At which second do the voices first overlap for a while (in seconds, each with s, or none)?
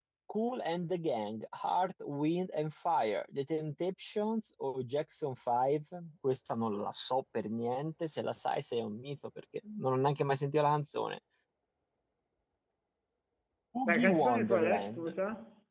13.9 s